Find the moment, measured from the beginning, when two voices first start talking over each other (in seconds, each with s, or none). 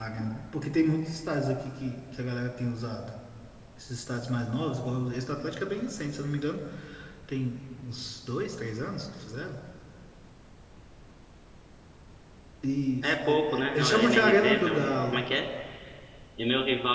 13.0 s